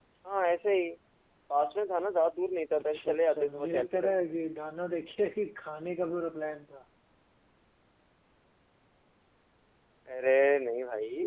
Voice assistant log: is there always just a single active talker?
No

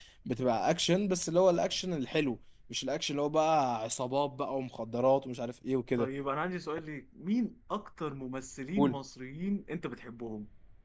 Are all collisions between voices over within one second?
Yes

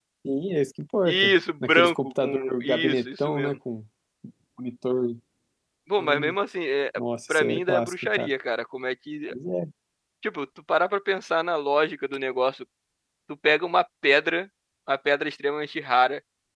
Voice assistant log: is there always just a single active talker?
No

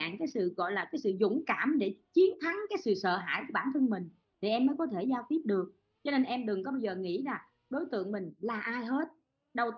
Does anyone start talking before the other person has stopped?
No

